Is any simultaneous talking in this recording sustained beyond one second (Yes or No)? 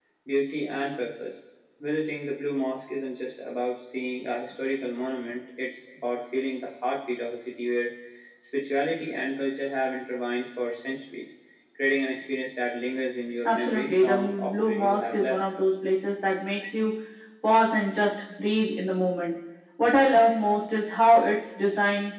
Yes